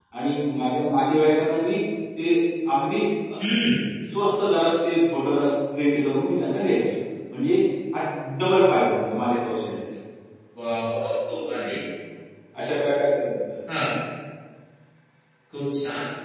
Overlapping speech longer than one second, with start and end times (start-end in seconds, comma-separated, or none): none